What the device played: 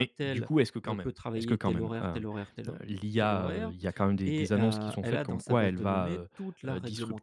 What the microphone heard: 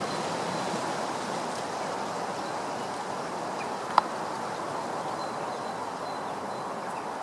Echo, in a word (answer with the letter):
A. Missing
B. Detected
A